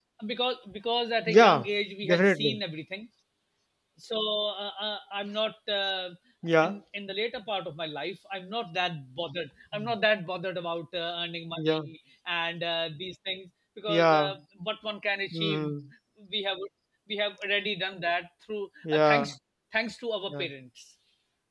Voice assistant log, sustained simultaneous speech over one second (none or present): none